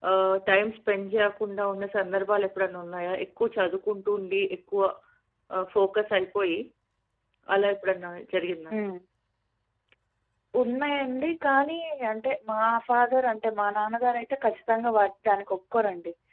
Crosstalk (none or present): none